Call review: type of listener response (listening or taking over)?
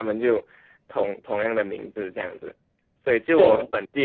listening